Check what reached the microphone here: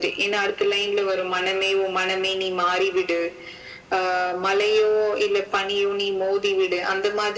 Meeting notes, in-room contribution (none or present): none